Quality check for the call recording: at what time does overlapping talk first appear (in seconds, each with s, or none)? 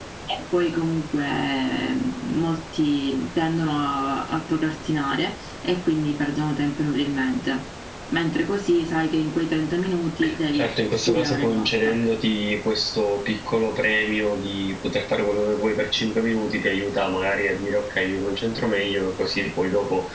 10.5 s